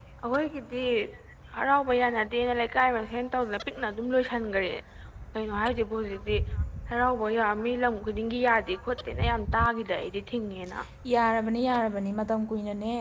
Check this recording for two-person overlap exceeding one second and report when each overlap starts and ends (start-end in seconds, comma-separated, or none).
none